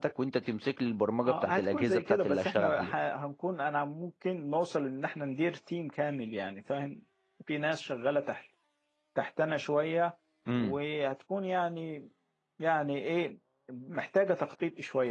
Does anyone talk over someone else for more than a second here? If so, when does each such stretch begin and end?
1.2-2.9

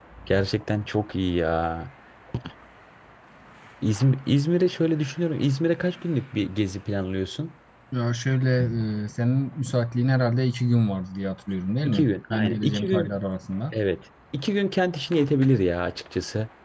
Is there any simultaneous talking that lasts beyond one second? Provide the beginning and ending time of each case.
11.8-13.2

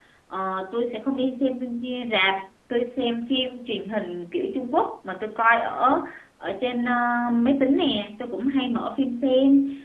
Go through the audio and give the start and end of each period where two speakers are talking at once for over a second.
none

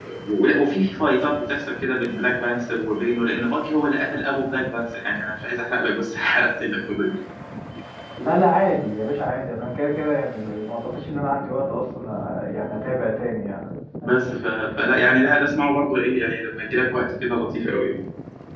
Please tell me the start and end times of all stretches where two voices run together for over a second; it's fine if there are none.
none

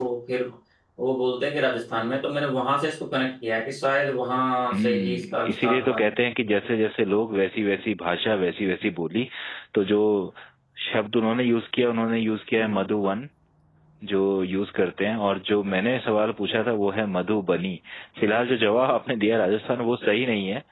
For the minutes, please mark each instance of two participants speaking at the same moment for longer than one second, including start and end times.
4.7-6.0

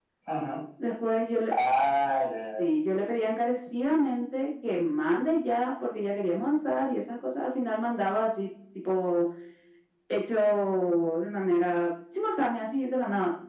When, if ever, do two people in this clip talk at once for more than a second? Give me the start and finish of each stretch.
none

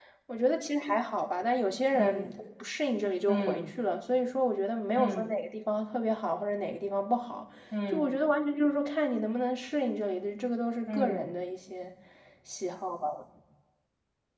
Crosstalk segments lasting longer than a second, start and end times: none

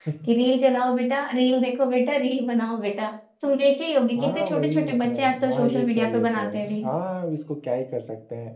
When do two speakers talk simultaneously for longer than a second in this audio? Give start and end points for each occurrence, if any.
4.2-6.9

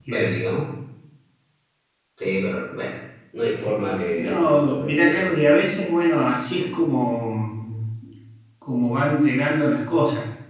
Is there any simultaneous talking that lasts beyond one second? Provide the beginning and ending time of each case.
4.2-5.6

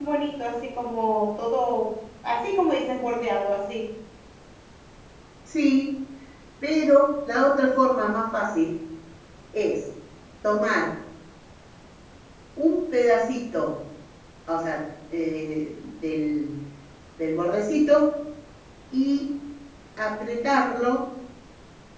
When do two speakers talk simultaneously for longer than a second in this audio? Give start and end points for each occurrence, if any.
none

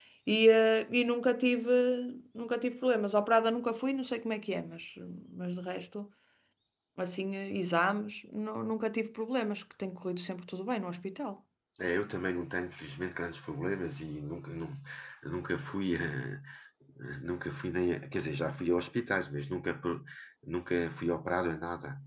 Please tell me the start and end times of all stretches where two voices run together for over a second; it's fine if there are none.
none

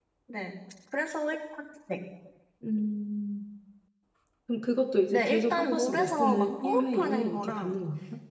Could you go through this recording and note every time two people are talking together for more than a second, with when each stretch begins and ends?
5.1-7.8

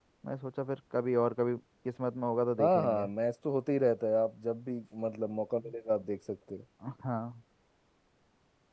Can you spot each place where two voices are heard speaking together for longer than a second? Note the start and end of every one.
none

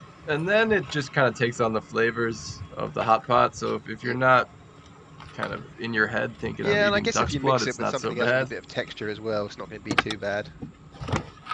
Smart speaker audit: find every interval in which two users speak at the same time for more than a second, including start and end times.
6.6-8.5

